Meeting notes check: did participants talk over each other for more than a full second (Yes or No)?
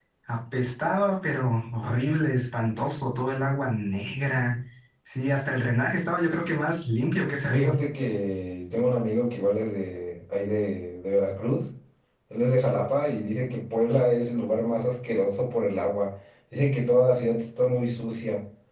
No